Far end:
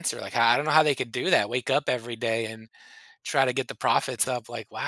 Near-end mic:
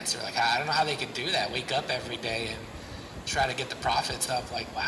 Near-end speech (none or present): none